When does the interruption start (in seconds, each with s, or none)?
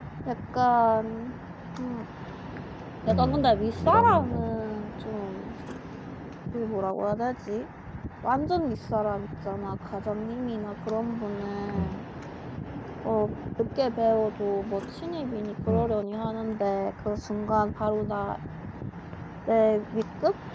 3.1 s